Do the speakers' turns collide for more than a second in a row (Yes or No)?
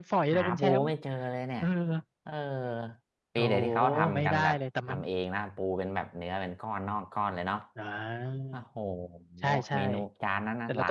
Yes